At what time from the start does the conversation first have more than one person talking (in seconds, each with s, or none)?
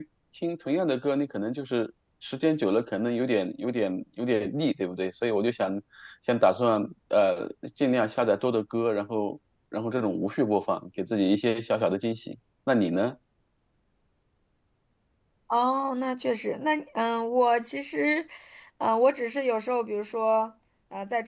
none